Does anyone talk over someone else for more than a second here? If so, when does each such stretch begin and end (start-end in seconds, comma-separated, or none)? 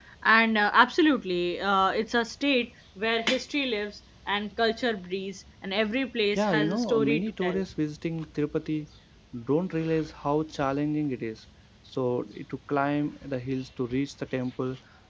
6.4-7.6